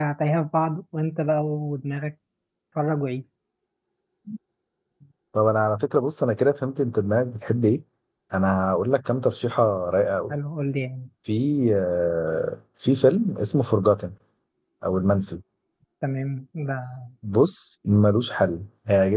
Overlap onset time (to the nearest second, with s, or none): none